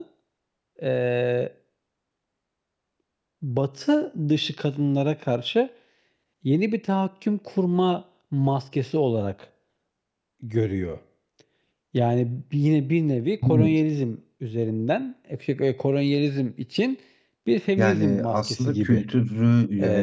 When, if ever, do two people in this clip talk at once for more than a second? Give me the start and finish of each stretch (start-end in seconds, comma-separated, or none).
17.8-19.0